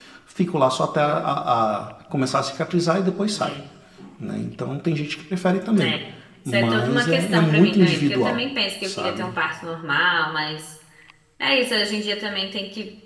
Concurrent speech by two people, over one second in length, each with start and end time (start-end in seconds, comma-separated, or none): 6.5-8.4